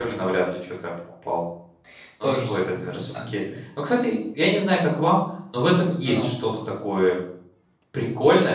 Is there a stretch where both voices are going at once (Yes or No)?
Yes